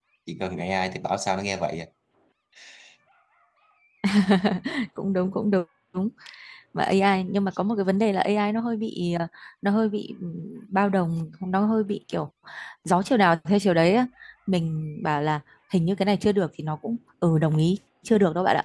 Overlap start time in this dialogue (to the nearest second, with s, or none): none